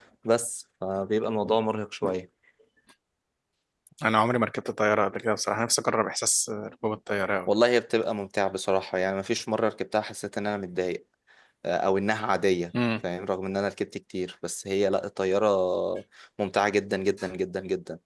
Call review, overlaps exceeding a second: none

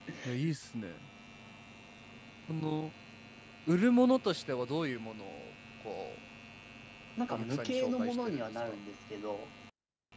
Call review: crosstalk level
present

